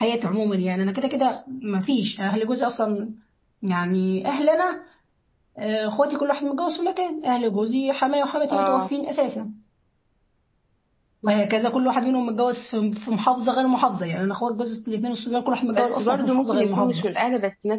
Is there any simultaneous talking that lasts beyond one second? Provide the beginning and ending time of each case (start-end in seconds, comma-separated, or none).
15.8-17.1